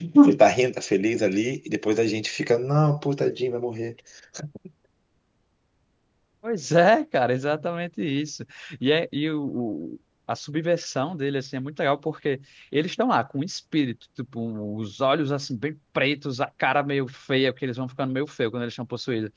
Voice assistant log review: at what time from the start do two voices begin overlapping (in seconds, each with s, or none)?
none